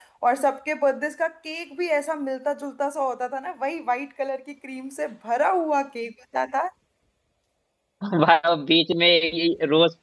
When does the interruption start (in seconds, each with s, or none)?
none